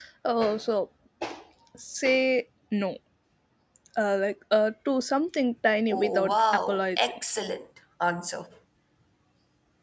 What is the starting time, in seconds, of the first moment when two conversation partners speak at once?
5.9 s

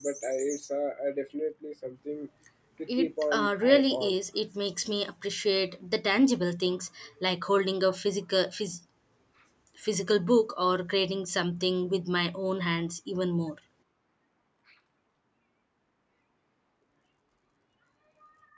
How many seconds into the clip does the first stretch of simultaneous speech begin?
3.0 s

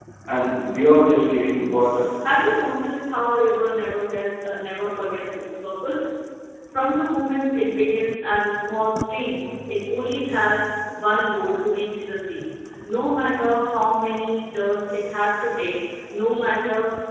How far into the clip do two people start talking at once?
none

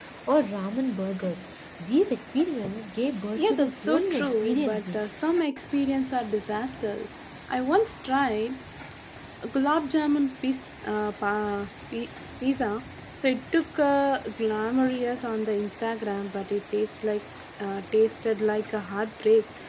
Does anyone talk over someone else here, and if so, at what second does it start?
3.4 s

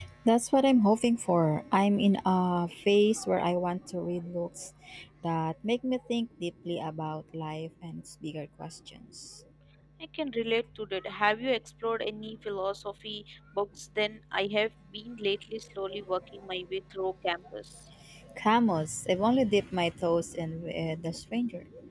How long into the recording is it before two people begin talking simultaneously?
none

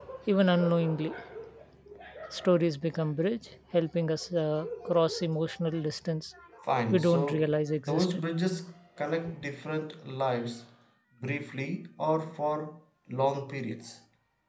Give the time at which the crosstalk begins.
6.9 s

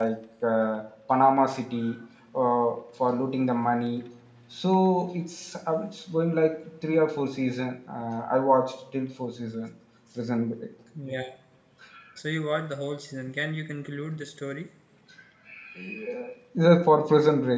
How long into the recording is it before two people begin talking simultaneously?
none

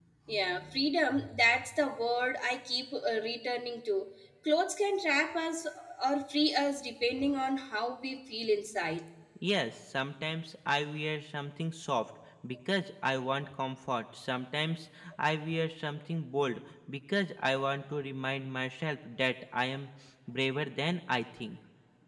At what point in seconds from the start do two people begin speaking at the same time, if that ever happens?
none

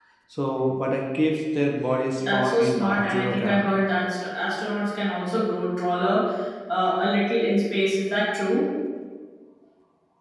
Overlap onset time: 2.3 s

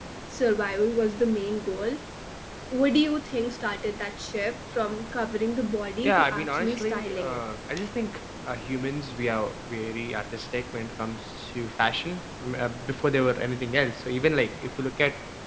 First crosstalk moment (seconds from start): 6.0 s

